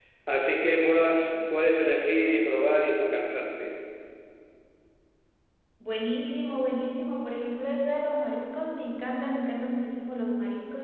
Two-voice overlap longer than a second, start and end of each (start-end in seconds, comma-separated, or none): none